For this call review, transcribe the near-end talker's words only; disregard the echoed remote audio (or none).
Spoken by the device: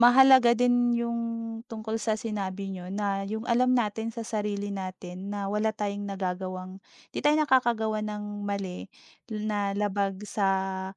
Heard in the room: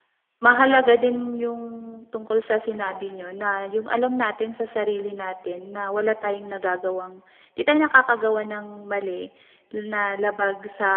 none